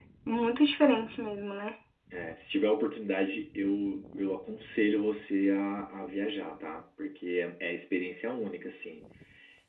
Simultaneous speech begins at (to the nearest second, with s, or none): none